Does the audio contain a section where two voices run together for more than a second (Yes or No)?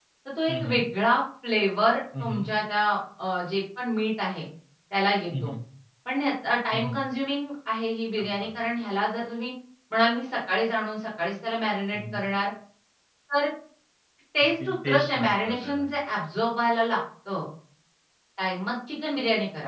Yes